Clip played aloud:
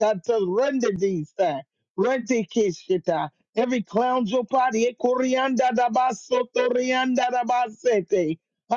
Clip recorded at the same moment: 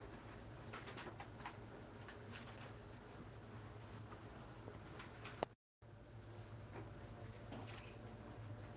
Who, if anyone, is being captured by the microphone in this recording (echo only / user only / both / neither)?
neither